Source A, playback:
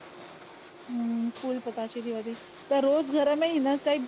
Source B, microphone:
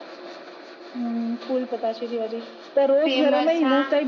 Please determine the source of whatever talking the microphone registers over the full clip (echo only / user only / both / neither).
both